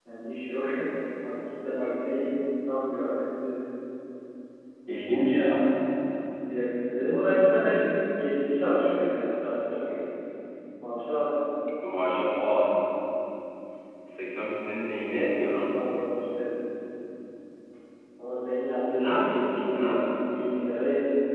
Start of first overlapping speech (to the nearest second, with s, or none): 19 s